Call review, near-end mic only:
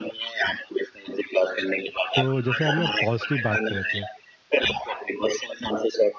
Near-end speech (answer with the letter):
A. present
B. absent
A